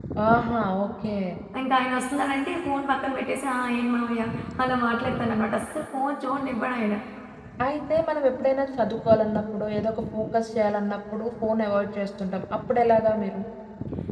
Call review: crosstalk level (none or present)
none